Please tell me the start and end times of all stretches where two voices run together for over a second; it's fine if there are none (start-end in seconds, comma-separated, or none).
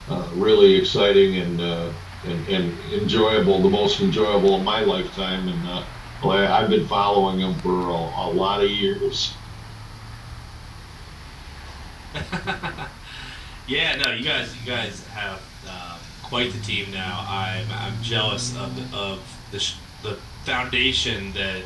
none